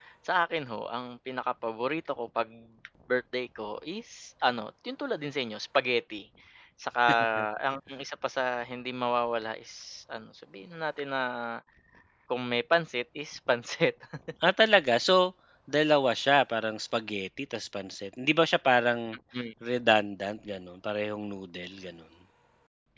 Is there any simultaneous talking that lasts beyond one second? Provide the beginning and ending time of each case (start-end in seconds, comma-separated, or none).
none